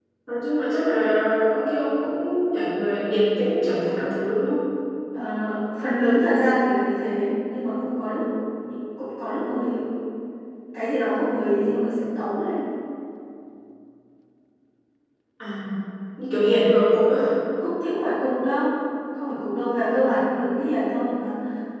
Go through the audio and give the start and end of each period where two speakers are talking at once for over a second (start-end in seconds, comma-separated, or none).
none